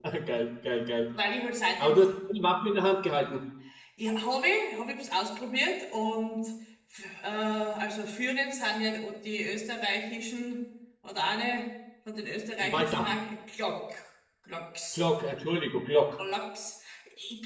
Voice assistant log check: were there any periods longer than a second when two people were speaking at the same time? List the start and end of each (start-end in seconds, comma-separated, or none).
none